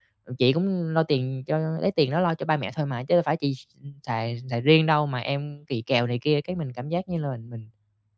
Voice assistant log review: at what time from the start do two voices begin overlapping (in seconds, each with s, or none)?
none